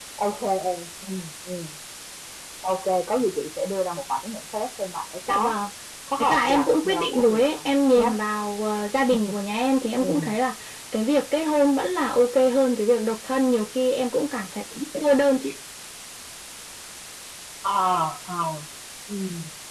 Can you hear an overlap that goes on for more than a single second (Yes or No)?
Yes